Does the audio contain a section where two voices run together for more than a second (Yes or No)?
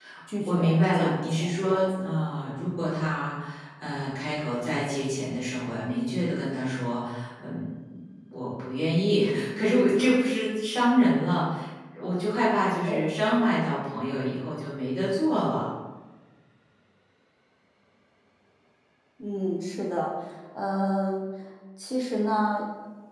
Yes